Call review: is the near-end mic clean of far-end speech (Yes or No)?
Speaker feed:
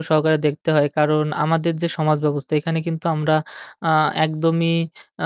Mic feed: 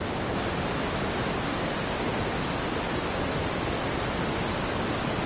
Yes